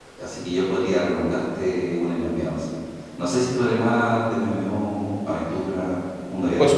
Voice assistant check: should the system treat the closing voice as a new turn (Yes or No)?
Yes